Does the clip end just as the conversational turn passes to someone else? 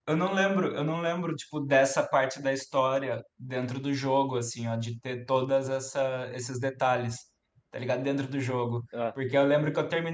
No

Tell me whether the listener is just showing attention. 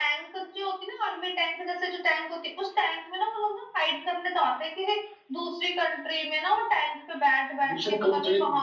No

